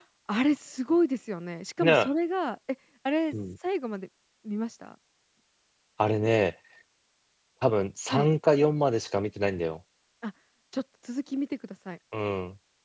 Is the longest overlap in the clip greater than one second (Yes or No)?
No